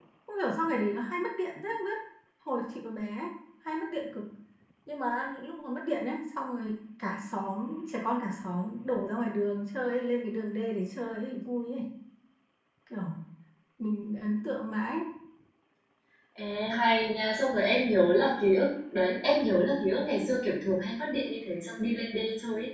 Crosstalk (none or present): none